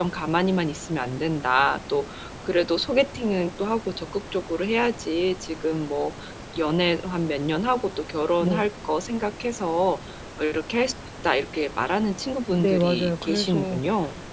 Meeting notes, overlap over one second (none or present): present